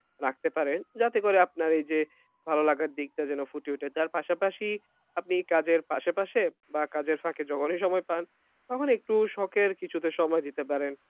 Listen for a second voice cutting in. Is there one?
No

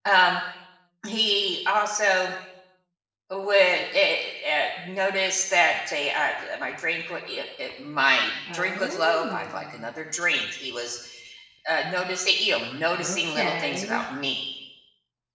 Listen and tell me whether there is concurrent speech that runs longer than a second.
Yes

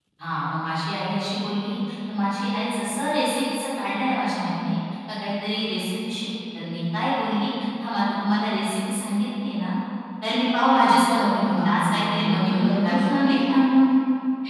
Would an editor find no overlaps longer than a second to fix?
No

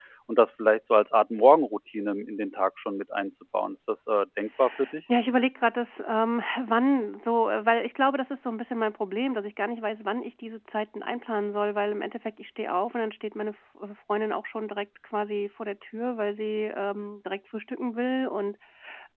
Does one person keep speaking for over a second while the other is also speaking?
No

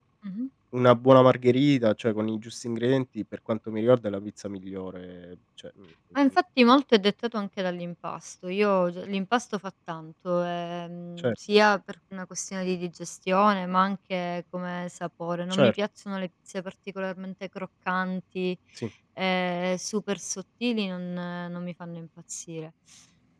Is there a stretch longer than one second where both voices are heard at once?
No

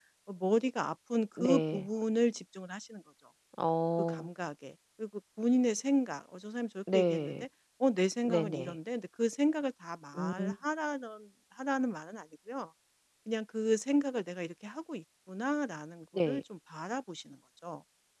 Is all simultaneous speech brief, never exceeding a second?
Yes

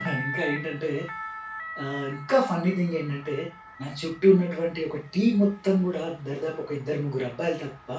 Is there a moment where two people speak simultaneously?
No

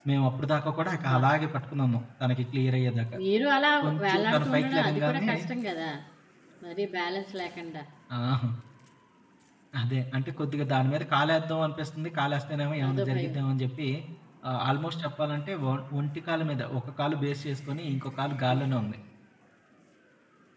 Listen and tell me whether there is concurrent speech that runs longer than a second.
Yes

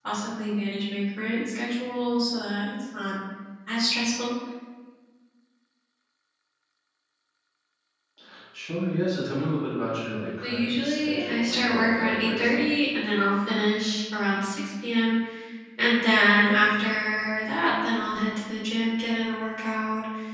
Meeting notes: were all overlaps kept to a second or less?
No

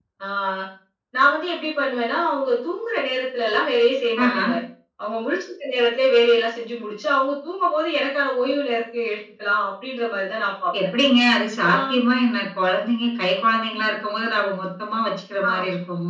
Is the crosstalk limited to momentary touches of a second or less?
Yes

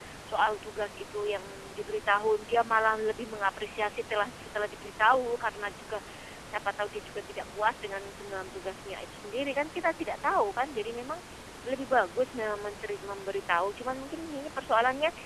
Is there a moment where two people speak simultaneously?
No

